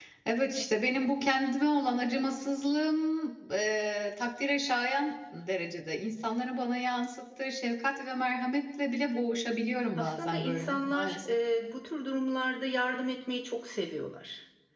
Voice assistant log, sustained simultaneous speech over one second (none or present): present